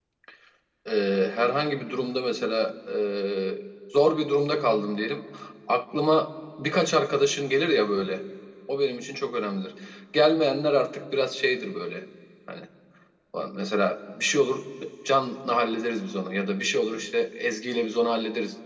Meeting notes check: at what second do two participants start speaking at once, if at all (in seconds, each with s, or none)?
none